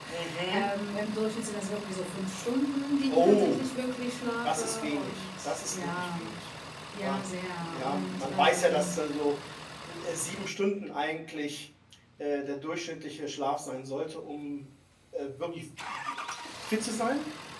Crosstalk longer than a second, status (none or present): present